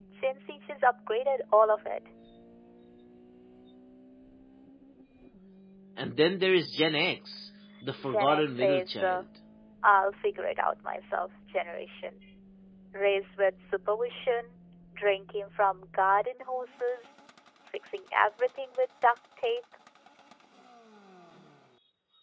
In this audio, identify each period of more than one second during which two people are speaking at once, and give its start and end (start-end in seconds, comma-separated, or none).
8.0-9.2